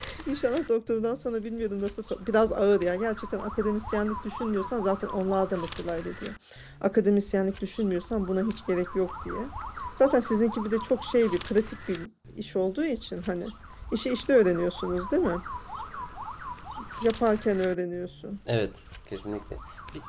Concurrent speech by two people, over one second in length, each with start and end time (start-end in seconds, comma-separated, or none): none